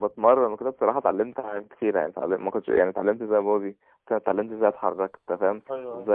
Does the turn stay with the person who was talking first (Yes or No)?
Yes